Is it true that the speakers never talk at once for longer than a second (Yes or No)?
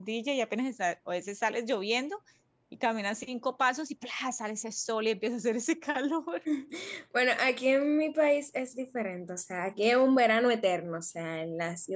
Yes